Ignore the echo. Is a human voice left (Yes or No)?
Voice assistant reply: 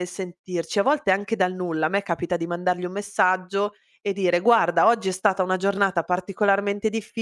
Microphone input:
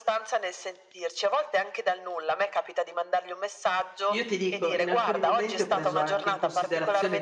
Yes